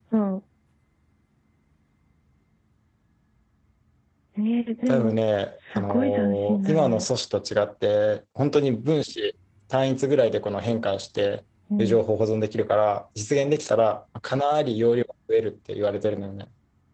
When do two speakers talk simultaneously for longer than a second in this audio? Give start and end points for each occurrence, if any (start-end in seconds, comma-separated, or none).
5.8-7.0